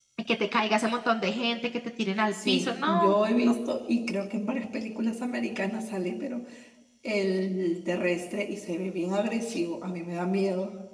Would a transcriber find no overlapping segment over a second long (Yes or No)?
No